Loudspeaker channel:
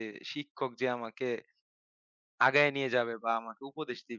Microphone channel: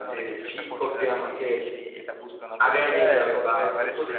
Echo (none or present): present